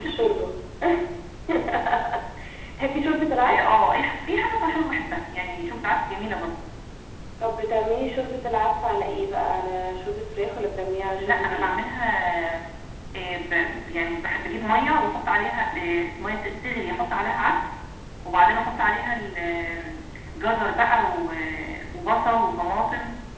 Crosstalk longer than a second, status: none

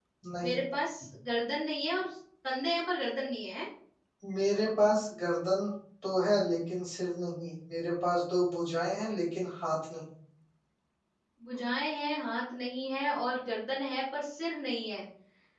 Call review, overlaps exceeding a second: none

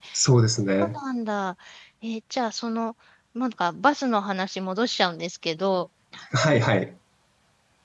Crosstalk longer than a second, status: none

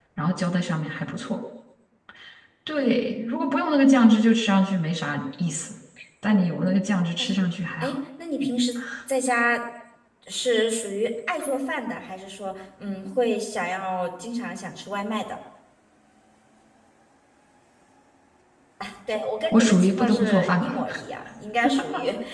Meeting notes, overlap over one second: present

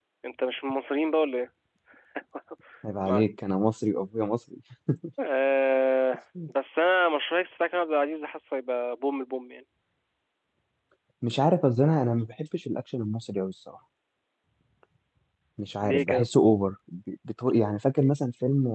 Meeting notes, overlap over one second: none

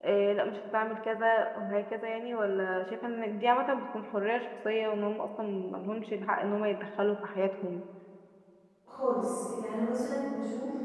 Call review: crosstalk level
none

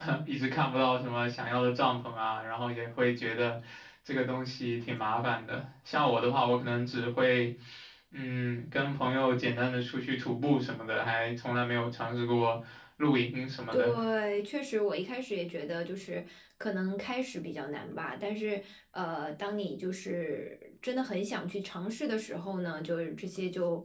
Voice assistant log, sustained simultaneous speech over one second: none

